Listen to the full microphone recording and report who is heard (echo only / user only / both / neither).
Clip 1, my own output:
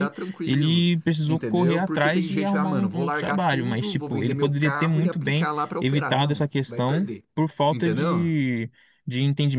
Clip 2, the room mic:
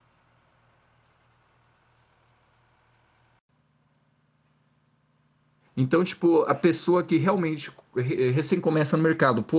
user only